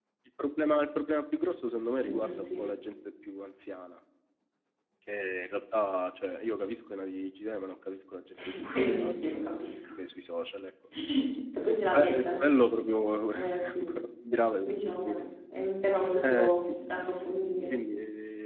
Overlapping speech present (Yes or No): Yes